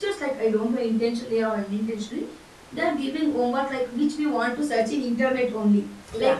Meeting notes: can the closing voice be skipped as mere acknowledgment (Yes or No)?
Yes